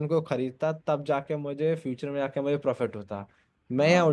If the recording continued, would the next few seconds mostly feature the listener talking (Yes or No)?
No